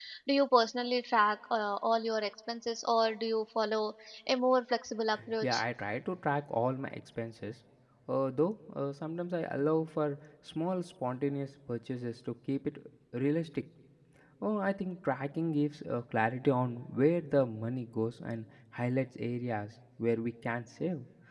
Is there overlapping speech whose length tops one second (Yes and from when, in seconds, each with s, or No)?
No